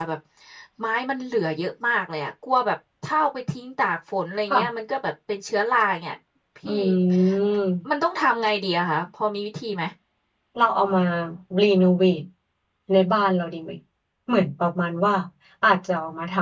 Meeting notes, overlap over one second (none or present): none